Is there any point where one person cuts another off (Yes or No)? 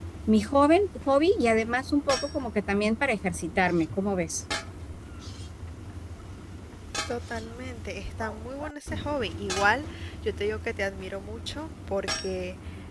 No